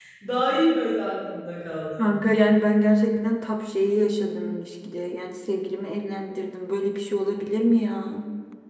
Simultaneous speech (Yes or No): No